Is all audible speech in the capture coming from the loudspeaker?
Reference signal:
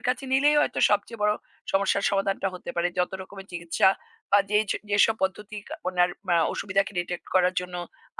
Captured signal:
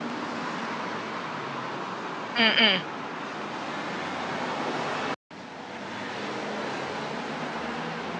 No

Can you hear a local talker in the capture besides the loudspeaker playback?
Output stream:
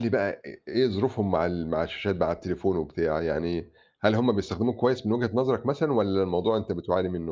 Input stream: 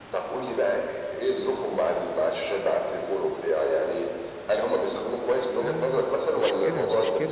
Yes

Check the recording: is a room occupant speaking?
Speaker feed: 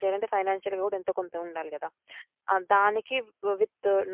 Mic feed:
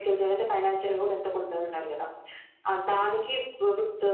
No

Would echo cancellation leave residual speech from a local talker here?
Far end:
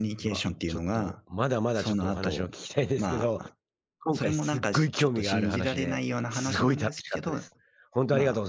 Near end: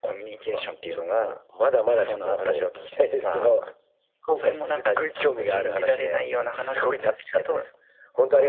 Yes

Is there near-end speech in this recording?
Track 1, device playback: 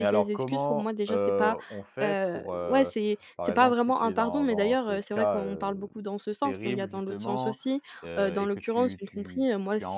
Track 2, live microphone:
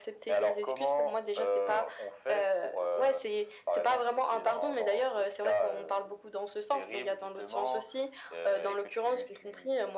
No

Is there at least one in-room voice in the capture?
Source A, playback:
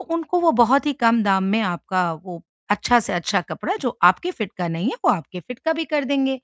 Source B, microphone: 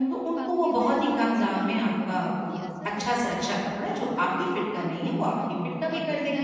Yes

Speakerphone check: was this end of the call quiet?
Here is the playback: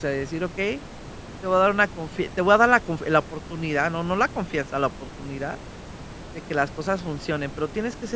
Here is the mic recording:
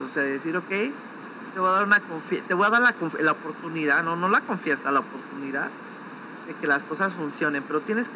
Yes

